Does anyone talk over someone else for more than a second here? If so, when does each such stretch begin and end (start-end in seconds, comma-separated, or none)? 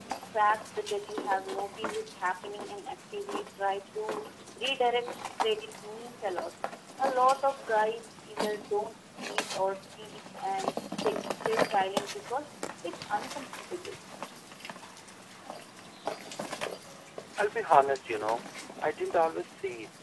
none